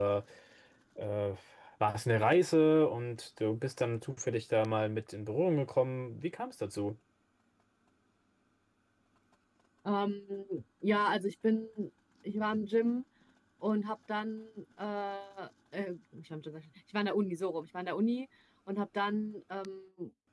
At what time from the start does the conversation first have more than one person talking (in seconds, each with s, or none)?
none